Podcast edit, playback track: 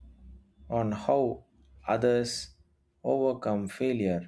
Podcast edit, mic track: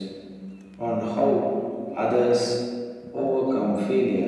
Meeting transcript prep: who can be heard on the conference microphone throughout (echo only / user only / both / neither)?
echo only